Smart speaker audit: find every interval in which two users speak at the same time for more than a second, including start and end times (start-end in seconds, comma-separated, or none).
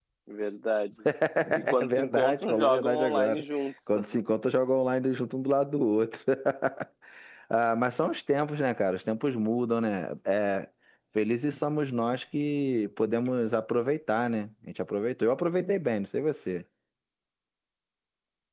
1.8-3.4